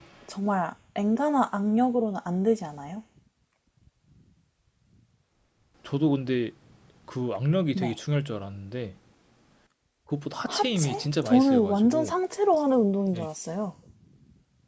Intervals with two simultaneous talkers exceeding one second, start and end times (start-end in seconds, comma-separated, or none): 10.5-12.1